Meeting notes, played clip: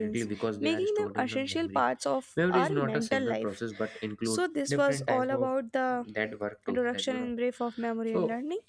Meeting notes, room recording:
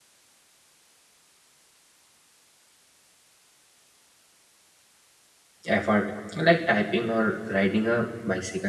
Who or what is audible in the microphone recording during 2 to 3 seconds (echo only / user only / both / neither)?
neither